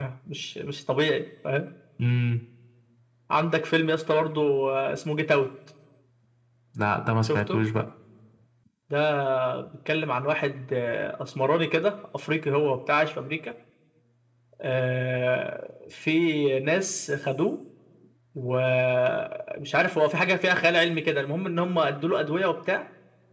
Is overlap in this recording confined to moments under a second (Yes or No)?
Yes